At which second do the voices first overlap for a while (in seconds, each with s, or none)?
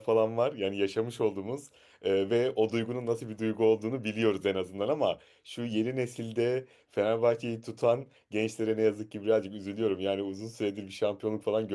none